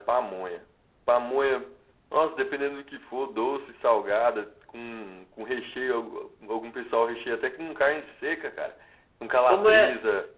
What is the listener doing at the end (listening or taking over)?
taking over